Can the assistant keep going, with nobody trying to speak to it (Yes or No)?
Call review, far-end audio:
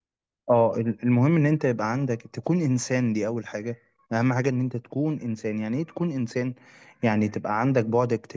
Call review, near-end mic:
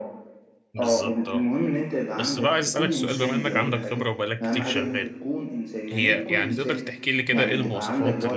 No